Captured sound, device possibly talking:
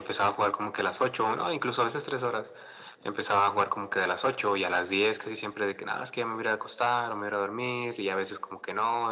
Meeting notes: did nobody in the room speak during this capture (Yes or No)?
Yes